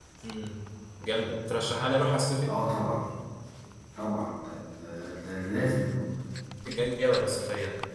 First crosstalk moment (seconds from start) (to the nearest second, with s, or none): none